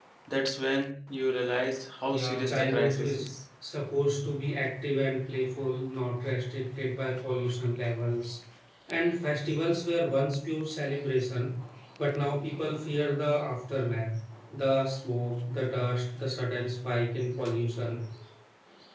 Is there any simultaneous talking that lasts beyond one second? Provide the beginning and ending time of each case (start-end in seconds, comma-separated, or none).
2.1-3.3